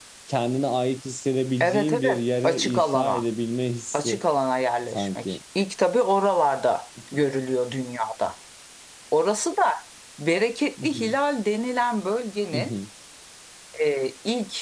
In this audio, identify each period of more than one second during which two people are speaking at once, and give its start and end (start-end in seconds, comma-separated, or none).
1.6-3.2